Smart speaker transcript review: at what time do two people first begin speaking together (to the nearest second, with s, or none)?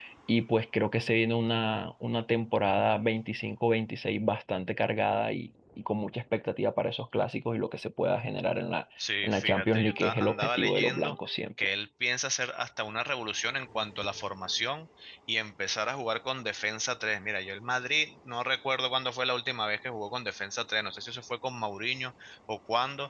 9 s